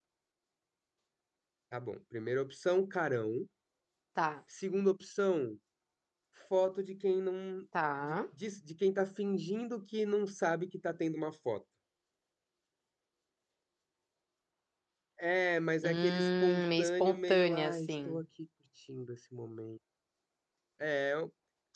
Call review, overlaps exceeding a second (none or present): present